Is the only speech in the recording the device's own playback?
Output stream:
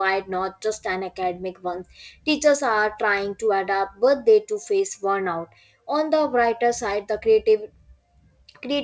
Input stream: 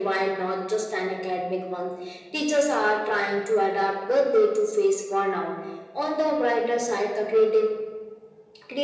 Yes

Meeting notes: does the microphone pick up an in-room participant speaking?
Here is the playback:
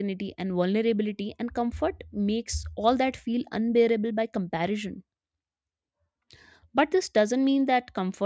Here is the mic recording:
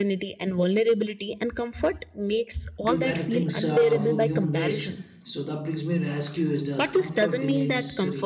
Yes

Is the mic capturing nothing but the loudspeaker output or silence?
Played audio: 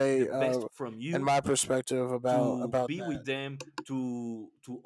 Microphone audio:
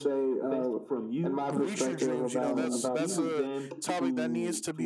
No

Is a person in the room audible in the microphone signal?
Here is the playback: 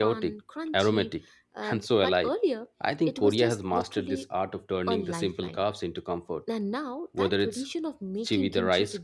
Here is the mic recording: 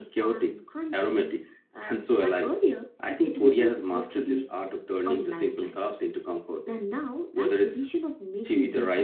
No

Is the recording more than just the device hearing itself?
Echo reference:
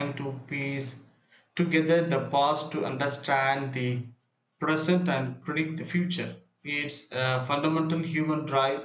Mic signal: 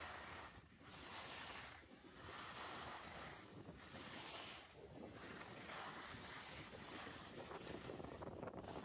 No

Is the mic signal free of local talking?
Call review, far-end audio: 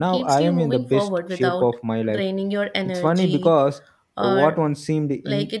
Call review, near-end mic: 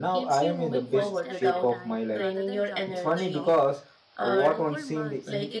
No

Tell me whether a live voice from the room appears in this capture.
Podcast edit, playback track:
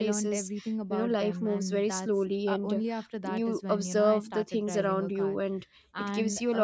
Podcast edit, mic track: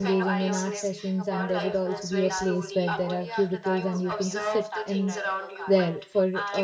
Yes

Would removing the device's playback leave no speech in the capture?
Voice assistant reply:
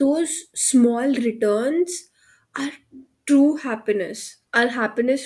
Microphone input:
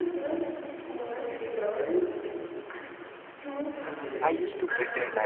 No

